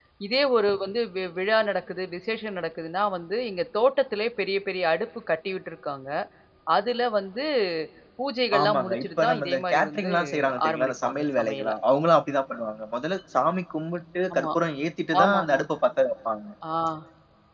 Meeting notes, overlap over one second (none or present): present